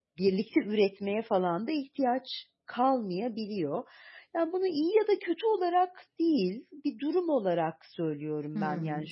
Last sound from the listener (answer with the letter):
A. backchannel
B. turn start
B